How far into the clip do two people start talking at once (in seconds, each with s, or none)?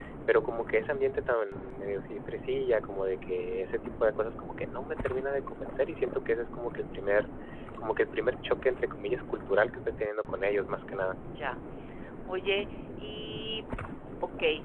none